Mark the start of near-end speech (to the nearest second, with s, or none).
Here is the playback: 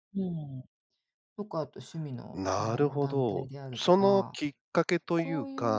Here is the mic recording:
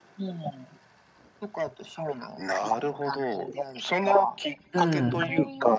5 s